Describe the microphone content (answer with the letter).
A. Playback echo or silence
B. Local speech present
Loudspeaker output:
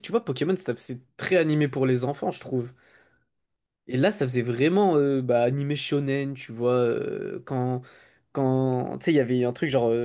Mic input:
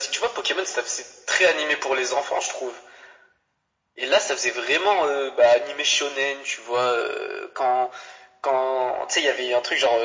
A